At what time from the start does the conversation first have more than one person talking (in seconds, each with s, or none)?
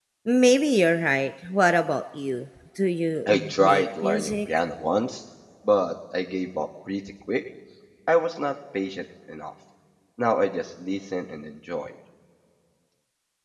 3.3 s